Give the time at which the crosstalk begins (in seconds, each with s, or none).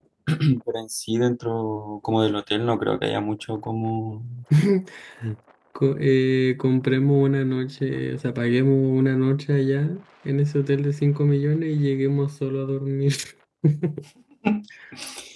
none